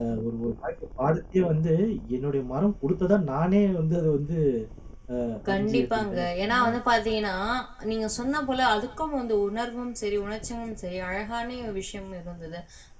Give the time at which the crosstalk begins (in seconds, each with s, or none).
5.5 s